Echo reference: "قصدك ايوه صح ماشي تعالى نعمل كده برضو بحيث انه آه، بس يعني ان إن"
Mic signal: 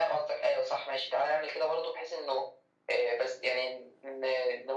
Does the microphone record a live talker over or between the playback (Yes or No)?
No